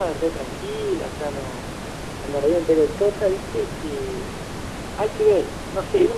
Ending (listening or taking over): taking over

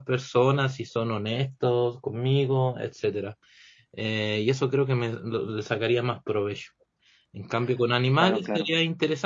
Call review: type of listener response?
listening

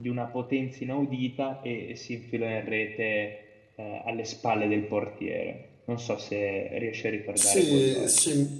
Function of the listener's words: taking over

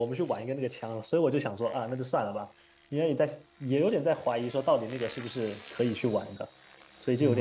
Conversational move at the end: taking over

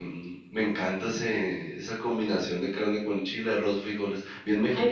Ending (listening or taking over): taking over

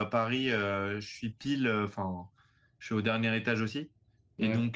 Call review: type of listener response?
listening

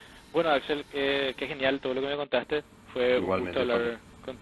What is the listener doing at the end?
listening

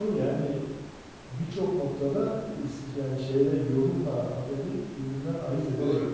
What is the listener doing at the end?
taking over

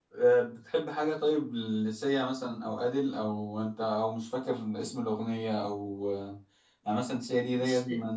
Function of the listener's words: listening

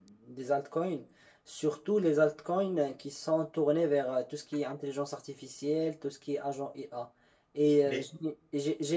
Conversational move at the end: listening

